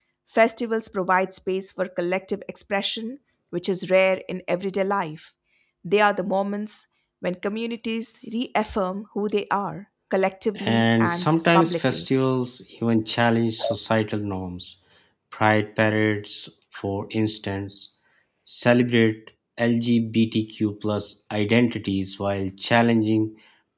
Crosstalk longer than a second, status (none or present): present